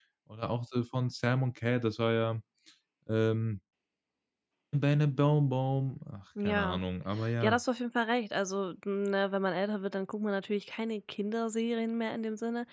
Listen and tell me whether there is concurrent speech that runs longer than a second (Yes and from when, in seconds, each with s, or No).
No